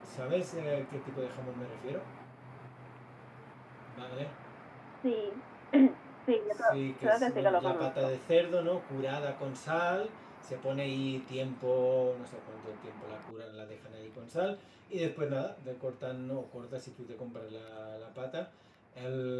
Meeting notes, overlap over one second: present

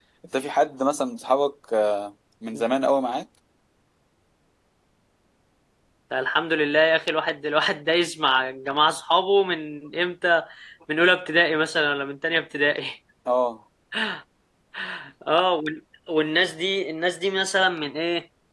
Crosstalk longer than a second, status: none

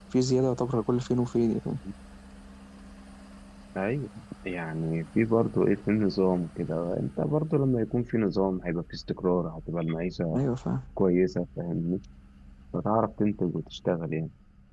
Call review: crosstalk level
none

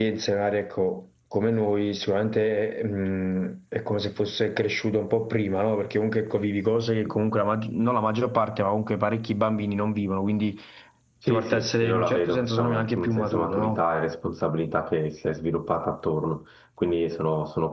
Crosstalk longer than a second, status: present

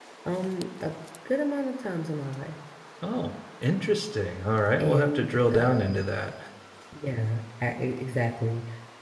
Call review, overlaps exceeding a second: present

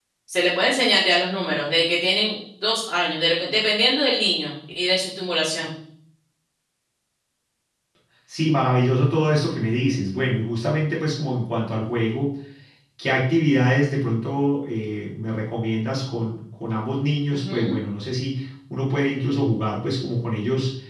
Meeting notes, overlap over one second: none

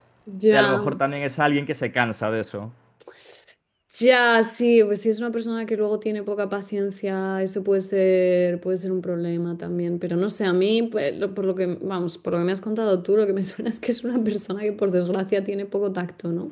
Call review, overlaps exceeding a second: none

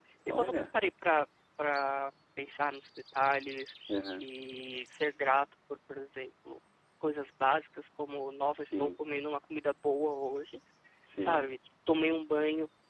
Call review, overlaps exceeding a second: none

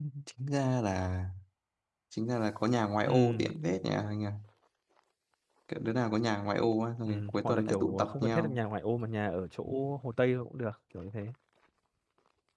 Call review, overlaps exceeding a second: present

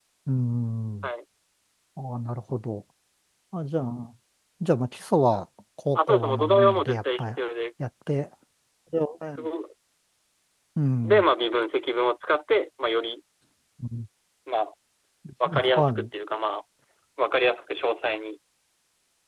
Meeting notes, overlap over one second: present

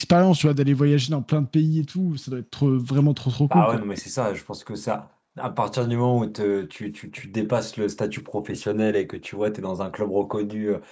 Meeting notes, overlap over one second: none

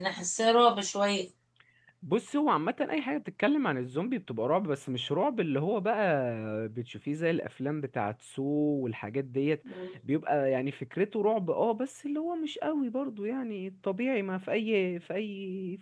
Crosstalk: none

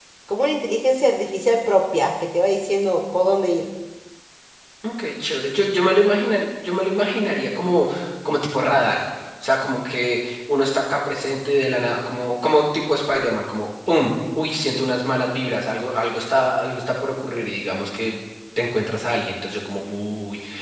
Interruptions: none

